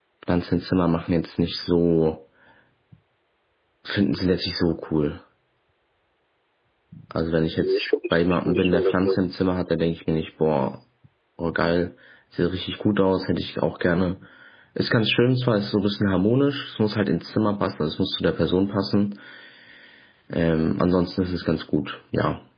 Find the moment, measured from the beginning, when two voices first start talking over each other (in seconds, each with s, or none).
7.6 s